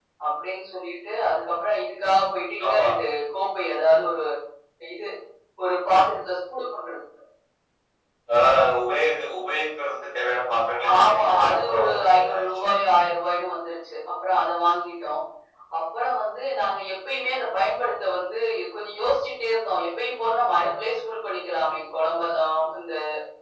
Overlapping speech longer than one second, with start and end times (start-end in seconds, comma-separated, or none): 11.0-12.7